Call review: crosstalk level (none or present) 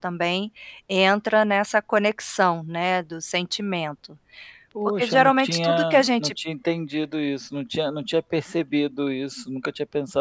present